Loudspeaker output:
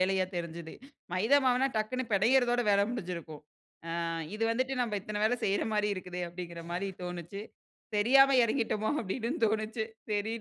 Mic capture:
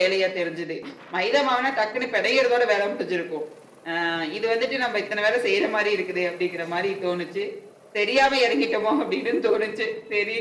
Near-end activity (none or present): none